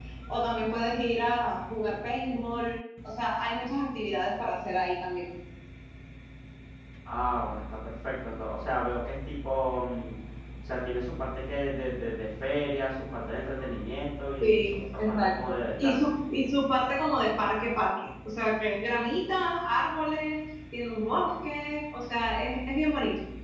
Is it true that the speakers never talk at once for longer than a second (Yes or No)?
No